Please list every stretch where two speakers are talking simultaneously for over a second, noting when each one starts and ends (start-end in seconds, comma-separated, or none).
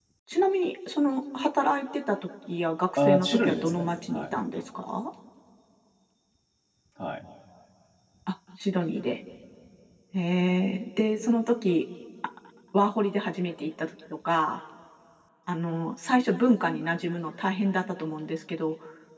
3.0-4.2